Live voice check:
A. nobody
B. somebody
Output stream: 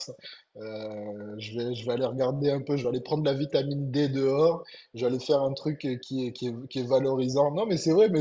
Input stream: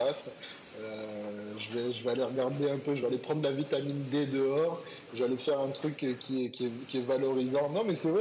A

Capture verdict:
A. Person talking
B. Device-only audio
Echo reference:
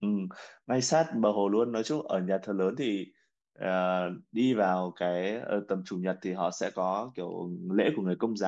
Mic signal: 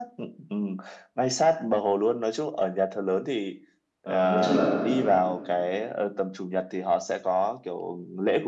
A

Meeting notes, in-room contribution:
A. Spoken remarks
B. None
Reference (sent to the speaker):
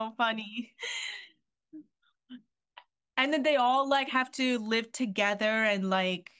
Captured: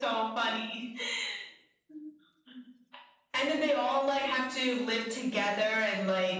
B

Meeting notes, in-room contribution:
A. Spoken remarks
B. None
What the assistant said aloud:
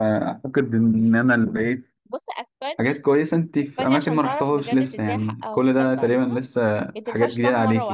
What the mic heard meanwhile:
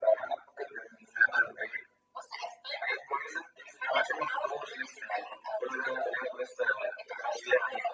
B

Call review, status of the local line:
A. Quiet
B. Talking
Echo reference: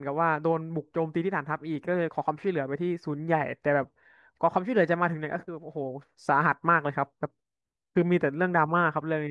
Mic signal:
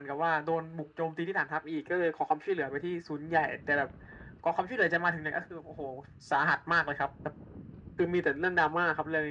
A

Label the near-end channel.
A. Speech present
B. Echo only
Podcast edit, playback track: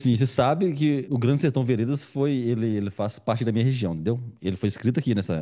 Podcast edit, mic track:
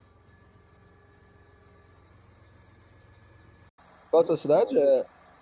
A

